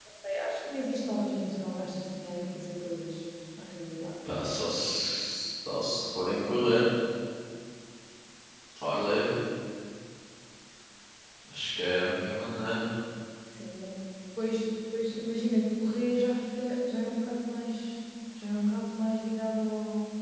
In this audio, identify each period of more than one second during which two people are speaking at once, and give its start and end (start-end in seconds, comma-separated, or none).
none